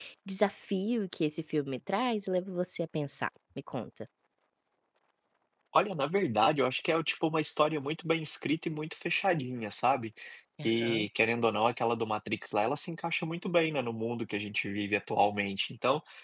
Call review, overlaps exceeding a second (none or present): none